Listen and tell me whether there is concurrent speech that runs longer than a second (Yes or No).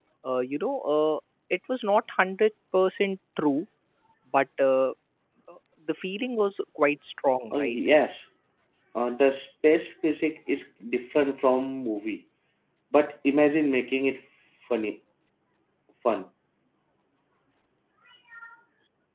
No